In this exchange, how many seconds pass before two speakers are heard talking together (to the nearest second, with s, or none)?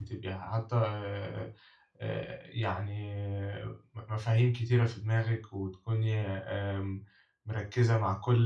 none